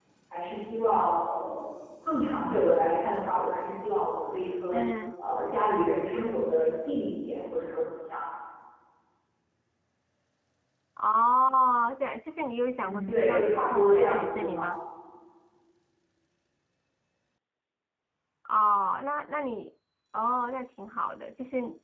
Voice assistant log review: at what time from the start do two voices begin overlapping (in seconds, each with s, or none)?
12.8 s